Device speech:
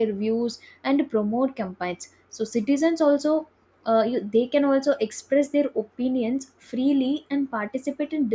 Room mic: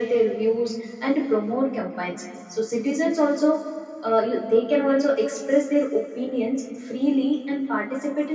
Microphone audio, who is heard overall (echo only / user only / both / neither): echo only